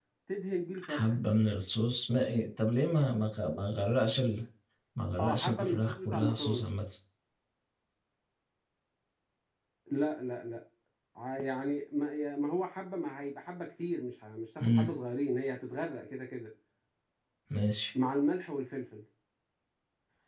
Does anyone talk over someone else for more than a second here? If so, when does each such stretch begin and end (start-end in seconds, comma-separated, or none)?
5.2-6.7